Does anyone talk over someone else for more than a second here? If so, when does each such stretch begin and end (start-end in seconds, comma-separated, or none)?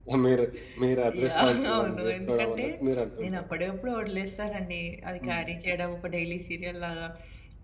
1.2-2.6